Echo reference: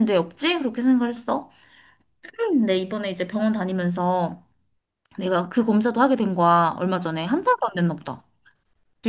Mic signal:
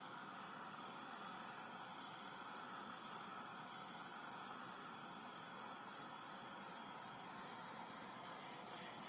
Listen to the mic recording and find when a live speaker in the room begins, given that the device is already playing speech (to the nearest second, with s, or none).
none